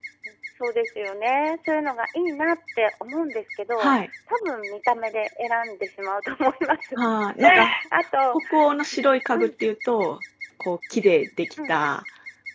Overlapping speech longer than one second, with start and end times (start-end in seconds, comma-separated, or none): none